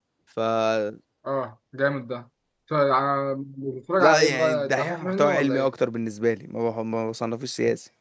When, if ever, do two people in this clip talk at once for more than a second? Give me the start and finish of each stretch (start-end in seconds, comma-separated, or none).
4.0-5.7